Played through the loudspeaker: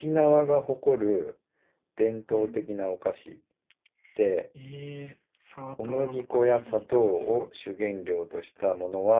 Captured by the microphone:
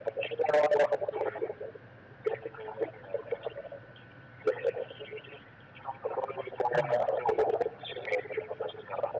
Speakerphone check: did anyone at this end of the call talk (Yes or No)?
Yes